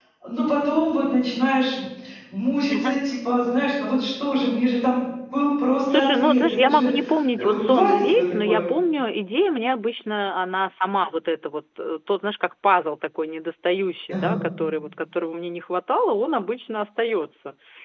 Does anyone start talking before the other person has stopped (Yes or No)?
Yes